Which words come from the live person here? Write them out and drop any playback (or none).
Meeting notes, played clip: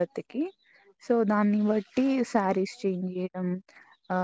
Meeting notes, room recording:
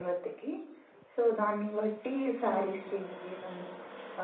ఆహా